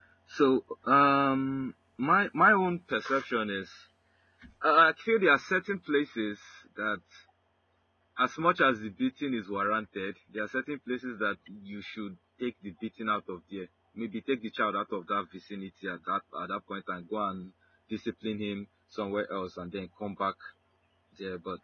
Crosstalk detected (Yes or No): No